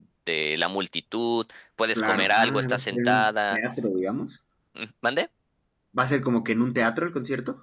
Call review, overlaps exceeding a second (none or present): present